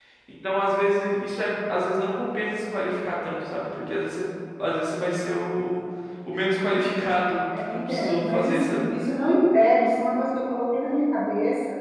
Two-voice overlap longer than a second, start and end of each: 7.7-8.9

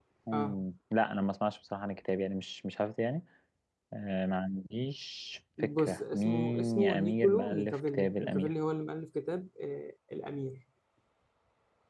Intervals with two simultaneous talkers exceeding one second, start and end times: 5.6-8.5

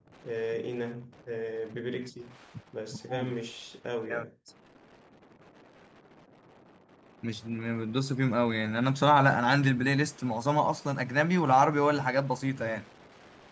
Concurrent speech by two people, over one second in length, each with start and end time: none

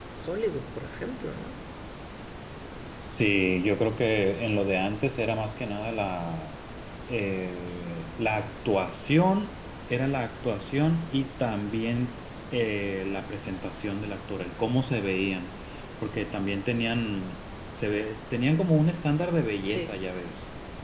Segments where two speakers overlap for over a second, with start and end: none

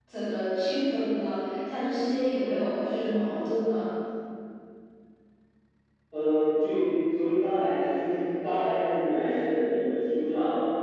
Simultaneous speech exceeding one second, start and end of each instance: none

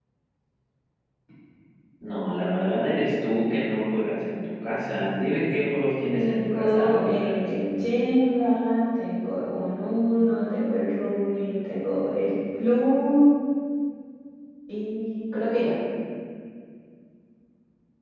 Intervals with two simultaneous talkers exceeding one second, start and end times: 6.1-7.5

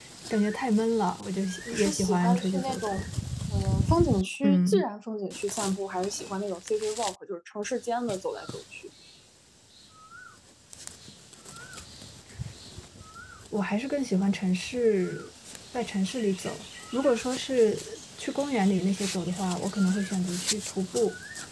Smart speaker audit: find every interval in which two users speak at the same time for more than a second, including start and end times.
1.7-3.1

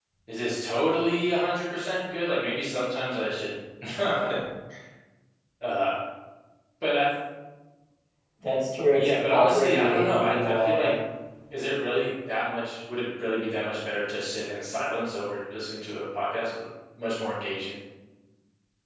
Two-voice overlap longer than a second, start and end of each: 8.9-10.9

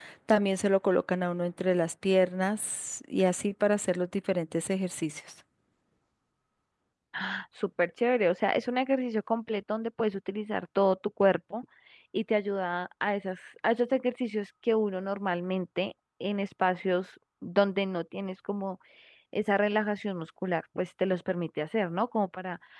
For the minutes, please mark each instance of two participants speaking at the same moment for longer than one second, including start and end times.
none

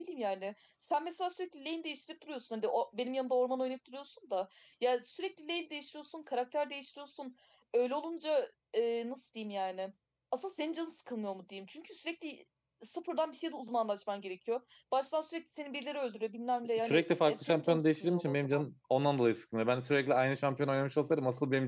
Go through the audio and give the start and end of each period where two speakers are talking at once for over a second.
16.8-18.7

